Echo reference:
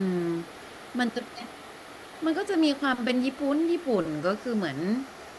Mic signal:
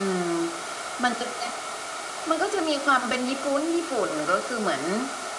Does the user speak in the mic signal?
No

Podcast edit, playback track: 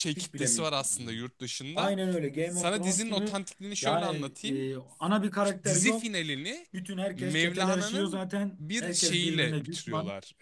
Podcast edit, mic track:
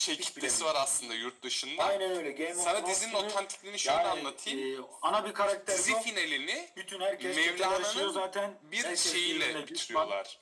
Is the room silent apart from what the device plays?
Yes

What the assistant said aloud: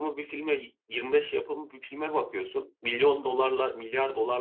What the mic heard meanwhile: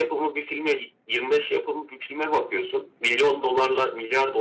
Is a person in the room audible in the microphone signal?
No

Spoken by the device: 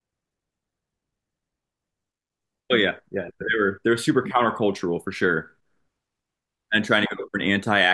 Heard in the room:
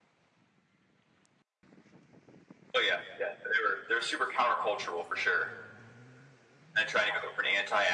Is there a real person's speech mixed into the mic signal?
No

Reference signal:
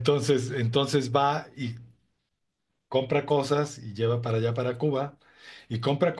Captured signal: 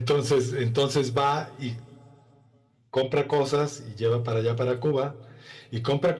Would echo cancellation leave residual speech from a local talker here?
No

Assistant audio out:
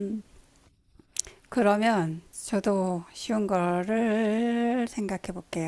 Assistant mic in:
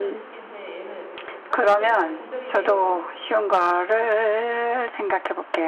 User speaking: Yes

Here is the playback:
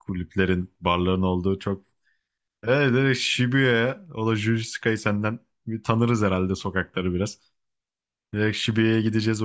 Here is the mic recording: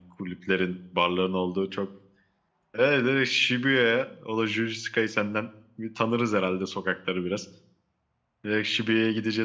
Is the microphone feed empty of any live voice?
Yes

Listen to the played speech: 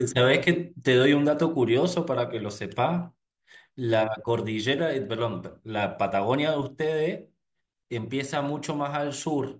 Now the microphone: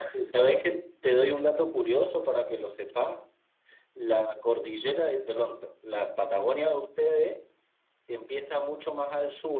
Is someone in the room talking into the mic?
No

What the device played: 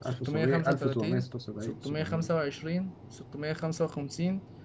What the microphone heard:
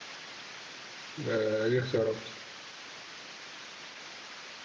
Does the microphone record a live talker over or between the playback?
Yes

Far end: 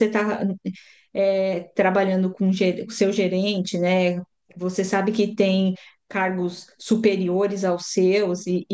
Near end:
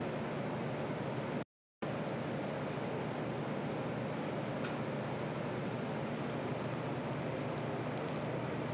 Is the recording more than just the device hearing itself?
No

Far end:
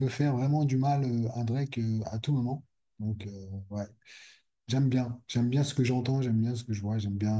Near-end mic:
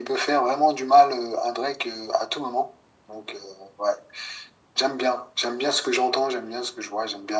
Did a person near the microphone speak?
No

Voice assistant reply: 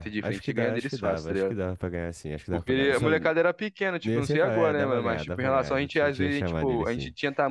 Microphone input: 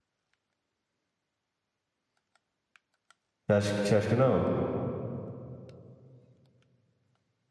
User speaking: Yes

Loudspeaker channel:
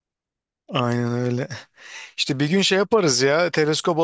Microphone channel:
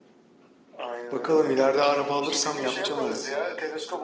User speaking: Yes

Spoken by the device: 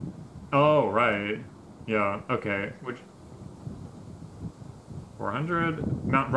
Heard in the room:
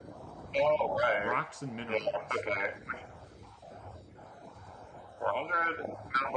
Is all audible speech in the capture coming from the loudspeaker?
No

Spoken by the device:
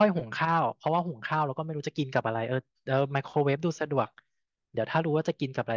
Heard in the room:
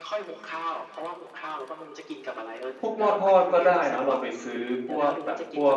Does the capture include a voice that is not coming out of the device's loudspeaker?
Yes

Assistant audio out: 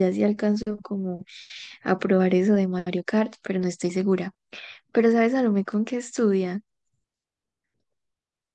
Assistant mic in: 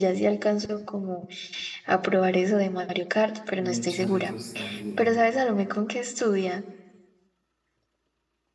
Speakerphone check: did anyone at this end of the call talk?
Yes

